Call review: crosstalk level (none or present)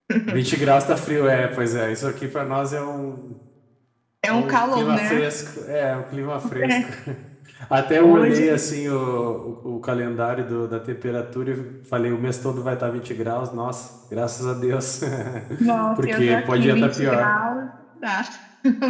present